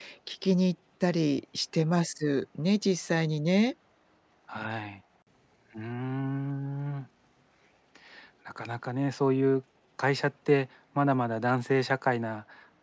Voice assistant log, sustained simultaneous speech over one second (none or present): none